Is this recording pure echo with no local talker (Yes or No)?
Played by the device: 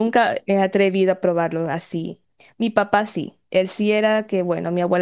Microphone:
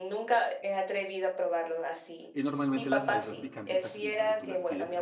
No